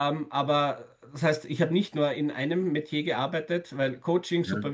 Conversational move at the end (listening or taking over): listening